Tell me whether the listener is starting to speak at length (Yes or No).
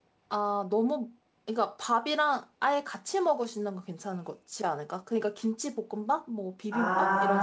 Yes